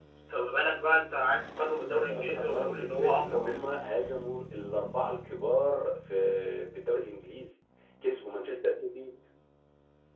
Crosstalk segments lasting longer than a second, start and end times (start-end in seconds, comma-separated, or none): 1.9-3.7